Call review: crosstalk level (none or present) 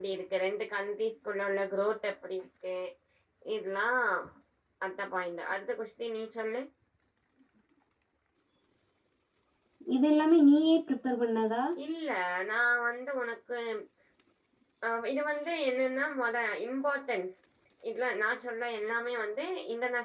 none